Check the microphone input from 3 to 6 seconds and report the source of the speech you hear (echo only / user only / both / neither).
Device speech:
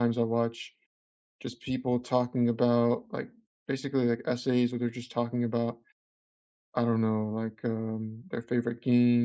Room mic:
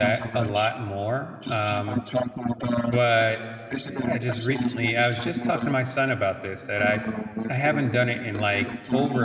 both